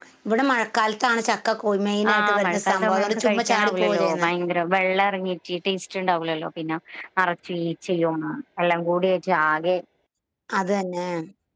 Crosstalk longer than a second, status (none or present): present